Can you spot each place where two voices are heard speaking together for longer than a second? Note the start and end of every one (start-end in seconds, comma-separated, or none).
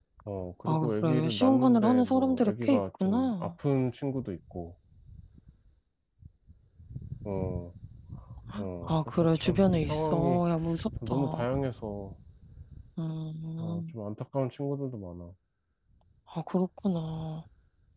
0.7-3.5, 8.9-10.4